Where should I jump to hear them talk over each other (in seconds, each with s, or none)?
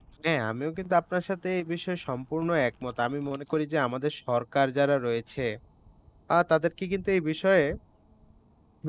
none